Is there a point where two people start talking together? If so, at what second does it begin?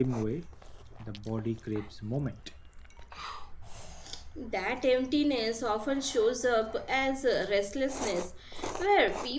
none

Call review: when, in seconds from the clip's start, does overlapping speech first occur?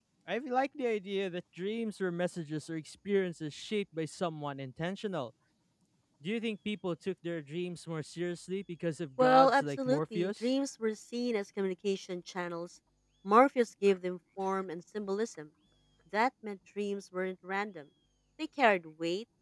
9.2 s

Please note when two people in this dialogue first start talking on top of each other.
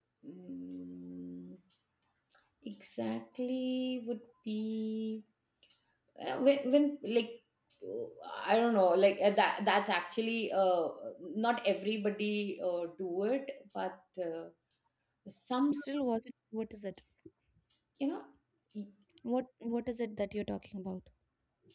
none

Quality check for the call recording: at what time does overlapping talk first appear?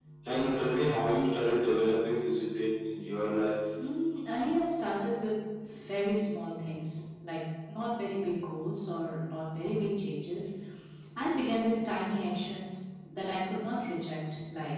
none

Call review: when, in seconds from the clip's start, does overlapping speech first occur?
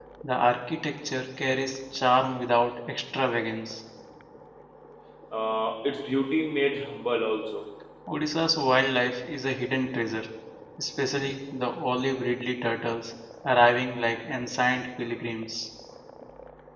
none

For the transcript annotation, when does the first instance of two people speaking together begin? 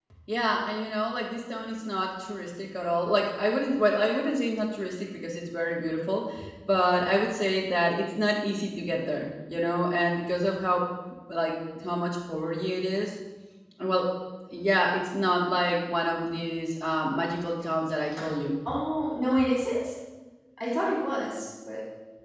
none

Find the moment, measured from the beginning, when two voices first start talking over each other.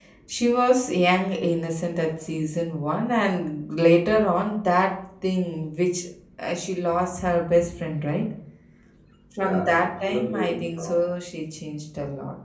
9.4 s

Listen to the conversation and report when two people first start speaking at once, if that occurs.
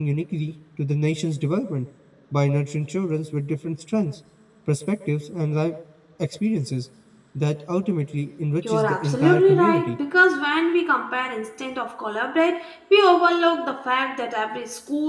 8.6 s

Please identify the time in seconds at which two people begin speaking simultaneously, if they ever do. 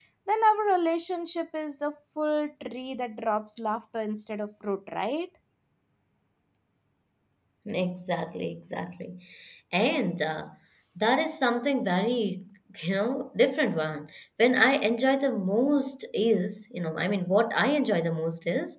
none

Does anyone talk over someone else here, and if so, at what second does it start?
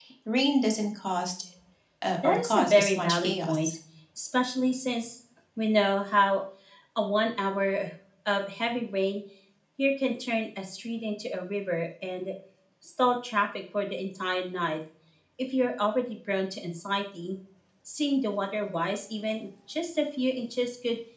2.2 s

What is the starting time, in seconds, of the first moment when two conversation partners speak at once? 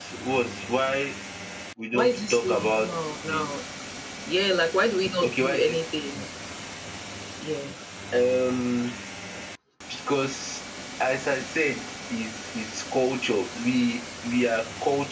1.9 s

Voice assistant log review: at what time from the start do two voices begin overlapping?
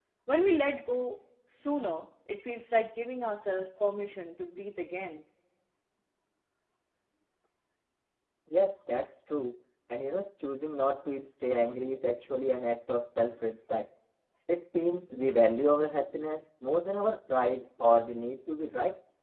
none

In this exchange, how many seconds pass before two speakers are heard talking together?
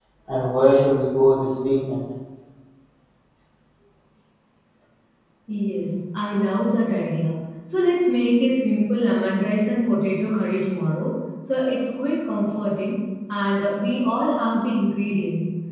none

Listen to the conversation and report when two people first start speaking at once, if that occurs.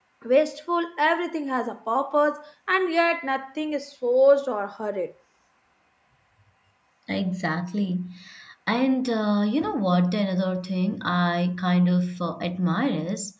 none

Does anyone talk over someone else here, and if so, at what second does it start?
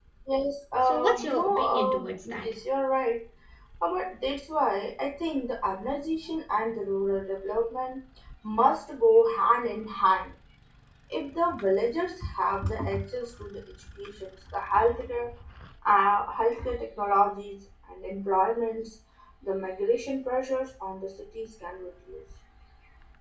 0.8 s

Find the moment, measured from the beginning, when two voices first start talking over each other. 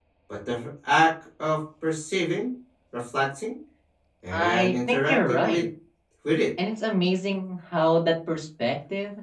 4.3 s

